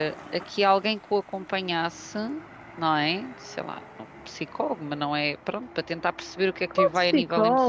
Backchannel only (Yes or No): No